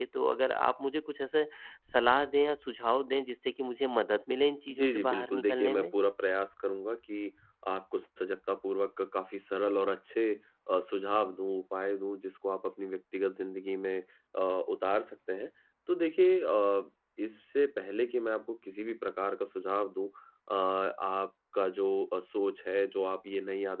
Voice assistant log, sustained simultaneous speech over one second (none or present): present